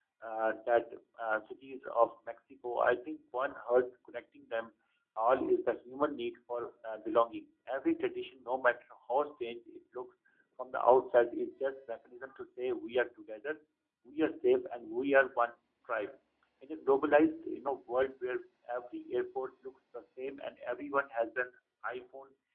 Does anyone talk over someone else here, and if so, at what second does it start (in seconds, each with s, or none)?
none